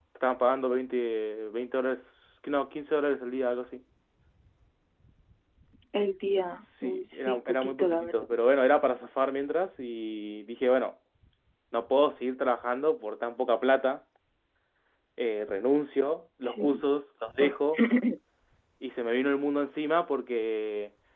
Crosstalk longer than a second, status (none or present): present